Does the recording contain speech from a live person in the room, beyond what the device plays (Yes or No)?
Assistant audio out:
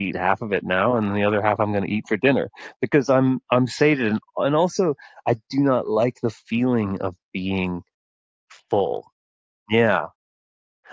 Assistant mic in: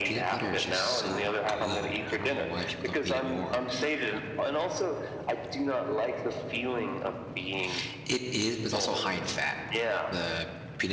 Yes